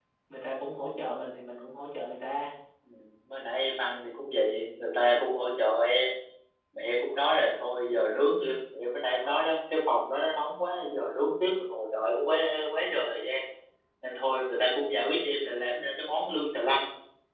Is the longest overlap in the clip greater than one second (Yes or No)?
No